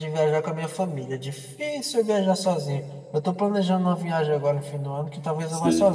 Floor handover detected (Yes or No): No